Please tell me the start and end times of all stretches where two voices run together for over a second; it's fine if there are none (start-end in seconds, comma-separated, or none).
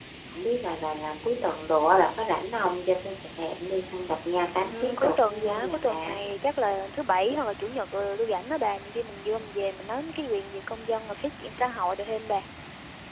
4.7-5.9